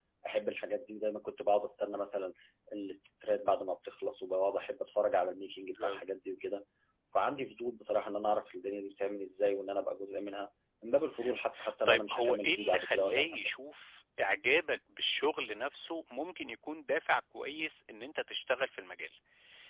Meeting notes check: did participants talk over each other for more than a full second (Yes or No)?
Yes